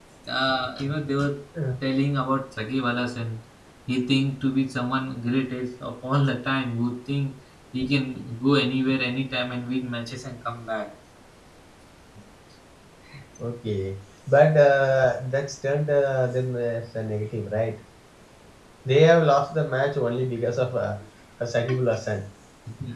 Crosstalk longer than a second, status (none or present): none